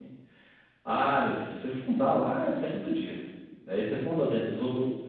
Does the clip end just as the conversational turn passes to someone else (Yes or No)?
No